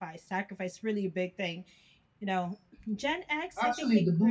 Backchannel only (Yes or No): No